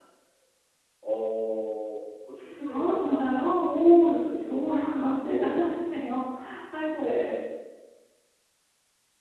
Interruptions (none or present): present